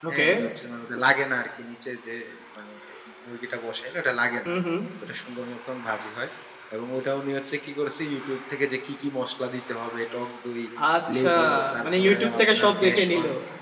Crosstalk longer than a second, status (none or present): present